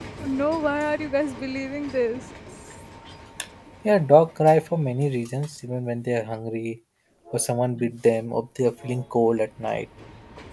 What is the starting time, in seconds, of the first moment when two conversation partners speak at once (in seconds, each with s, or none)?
none